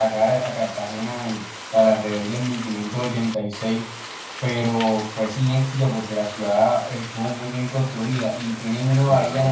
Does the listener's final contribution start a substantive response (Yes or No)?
No